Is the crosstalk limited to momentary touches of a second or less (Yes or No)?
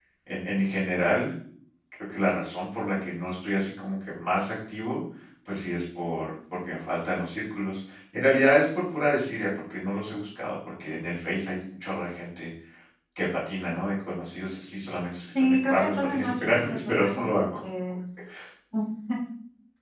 No